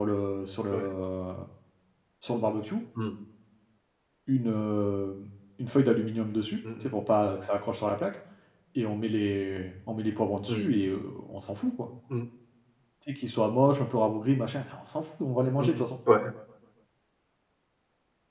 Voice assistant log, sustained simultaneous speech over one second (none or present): none